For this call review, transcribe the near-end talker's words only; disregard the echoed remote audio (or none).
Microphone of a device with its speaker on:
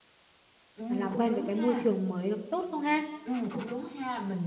ờ, làm quen với cái môi trường mới nó có tốt không ha!